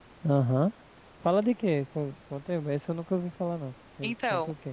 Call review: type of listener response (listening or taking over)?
taking over